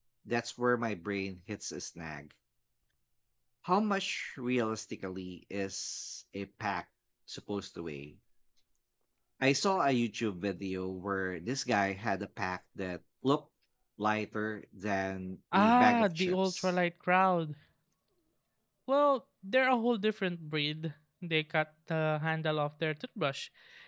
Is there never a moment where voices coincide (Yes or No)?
No